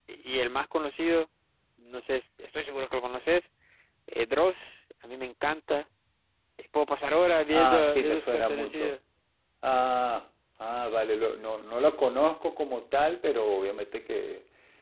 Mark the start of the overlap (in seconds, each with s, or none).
7.5 s